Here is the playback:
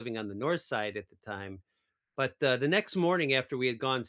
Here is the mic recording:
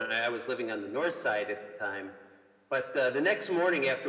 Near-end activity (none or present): none